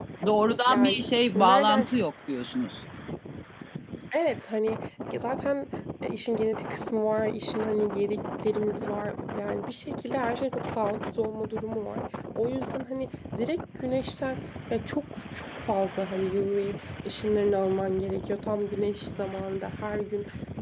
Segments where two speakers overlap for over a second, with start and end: none

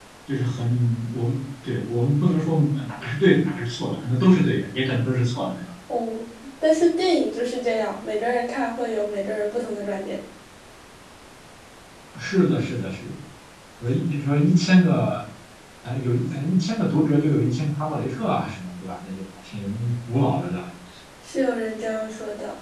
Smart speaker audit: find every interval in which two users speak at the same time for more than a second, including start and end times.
none

